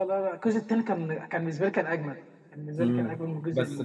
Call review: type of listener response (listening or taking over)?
taking over